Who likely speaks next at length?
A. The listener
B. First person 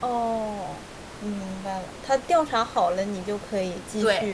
A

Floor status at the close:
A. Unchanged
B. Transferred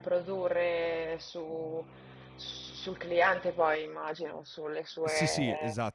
B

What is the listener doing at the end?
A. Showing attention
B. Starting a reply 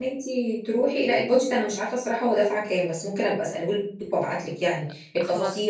A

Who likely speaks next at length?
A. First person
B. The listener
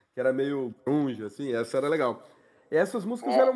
A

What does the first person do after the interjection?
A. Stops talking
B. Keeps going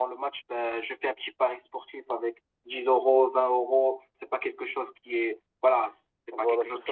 A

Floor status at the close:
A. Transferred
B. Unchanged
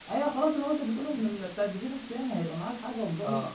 A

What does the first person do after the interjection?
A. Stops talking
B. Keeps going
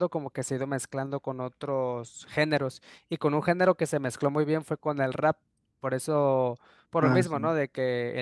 B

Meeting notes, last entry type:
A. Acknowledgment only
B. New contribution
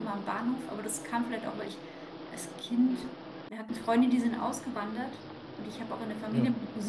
A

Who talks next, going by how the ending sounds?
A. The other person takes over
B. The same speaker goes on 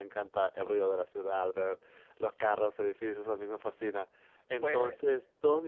B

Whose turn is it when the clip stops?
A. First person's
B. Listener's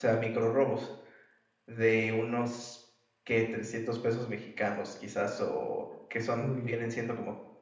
A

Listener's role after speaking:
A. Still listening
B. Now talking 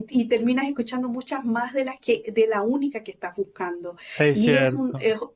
A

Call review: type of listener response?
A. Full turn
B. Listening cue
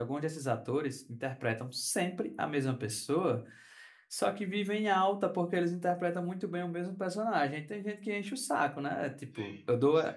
B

